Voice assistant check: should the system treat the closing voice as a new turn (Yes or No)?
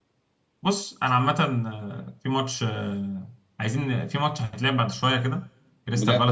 No